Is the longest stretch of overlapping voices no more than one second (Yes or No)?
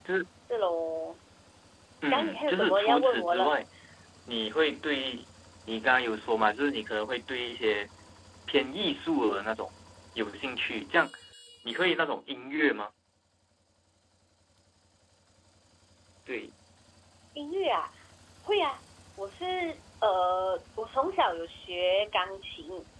No